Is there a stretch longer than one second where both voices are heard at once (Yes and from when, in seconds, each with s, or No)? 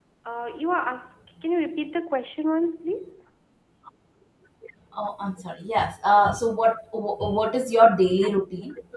No